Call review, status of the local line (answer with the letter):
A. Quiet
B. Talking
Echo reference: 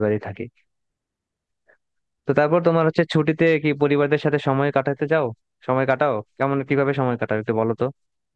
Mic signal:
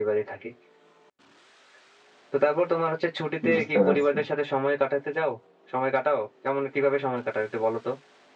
B